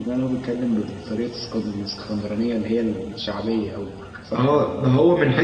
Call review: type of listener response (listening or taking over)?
taking over